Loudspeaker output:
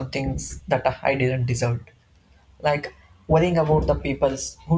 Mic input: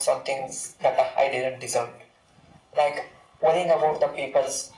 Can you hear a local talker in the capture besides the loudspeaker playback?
No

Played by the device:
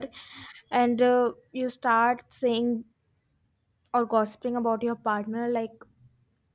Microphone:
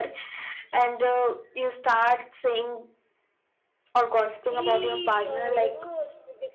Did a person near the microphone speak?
Yes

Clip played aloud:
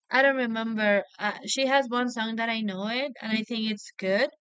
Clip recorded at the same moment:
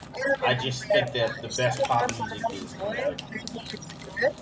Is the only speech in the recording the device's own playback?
No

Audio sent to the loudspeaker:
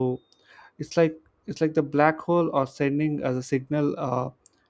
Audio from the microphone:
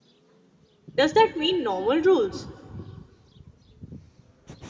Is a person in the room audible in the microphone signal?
Yes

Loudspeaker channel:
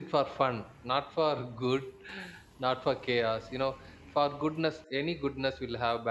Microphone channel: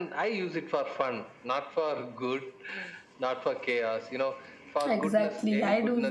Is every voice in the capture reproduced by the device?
No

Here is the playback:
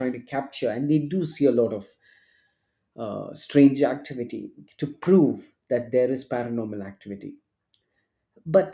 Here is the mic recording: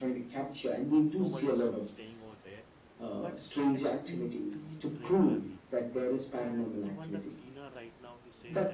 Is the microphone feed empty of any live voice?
No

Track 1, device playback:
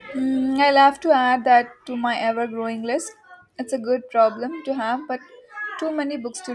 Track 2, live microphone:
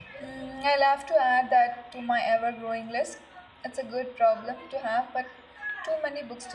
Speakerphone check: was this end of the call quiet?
Yes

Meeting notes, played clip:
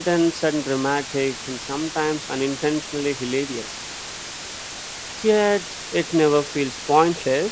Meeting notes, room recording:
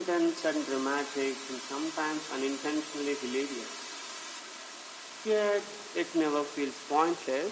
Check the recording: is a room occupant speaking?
No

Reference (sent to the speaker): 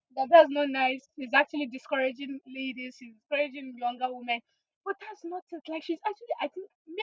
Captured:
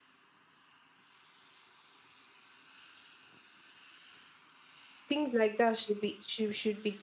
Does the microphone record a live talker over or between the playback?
Yes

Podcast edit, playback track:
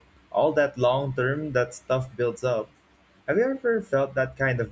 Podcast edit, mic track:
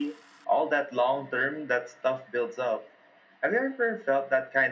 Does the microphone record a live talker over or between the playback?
No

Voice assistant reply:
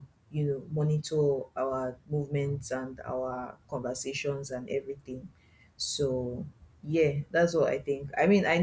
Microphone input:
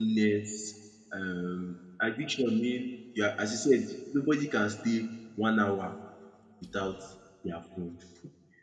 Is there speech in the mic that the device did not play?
Yes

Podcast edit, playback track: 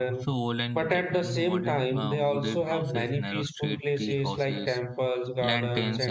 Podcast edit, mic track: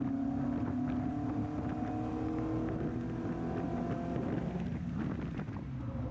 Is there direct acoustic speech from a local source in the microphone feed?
No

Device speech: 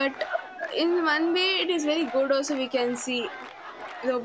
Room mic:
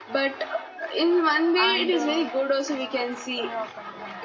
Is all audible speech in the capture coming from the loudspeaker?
No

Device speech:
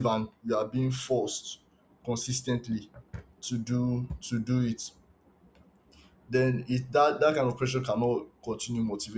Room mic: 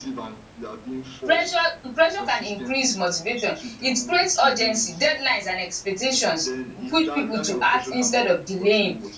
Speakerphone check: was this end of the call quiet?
No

